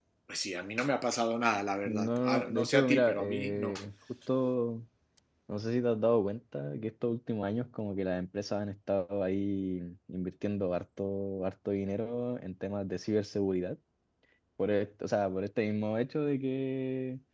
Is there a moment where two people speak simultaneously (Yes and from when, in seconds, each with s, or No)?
Yes, from 1.8 s